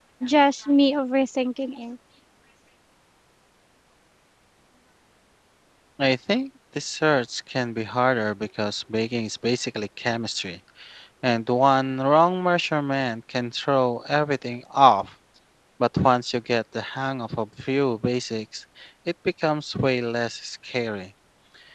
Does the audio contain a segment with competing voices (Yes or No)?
No